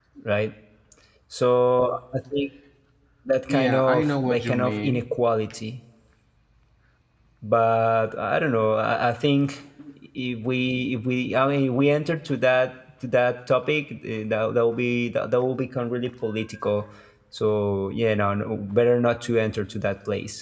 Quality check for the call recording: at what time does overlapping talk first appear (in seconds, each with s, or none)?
3.5 s